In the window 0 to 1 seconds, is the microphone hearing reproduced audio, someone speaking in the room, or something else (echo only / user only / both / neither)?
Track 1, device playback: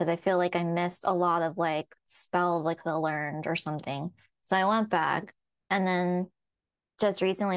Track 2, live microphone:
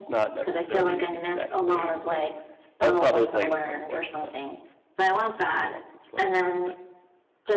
both